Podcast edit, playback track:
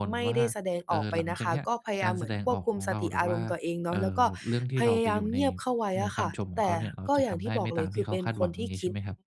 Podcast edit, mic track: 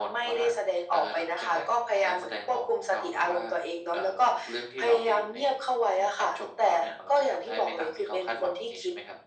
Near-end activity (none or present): none